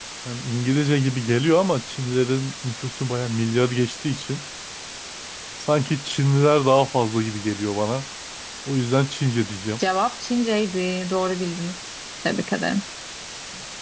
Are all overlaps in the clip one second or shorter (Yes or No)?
Yes